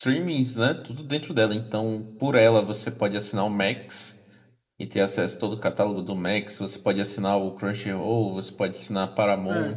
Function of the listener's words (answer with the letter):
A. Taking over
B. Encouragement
A